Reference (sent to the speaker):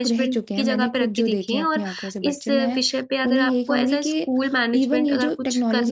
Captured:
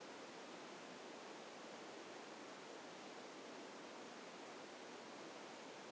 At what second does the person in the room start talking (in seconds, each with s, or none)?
none